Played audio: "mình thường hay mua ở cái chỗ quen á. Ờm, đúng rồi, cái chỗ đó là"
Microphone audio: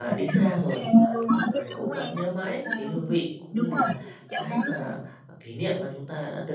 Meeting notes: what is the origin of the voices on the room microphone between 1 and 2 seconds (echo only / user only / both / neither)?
both